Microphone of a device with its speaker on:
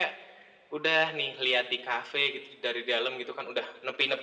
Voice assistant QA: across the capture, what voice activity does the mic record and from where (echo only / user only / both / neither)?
echo only